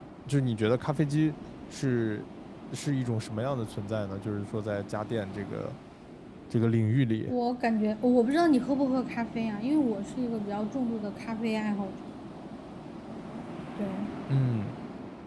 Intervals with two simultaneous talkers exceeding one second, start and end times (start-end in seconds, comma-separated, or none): none